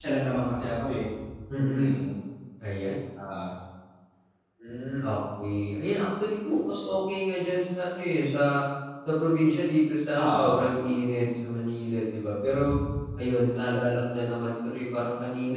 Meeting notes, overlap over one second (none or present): none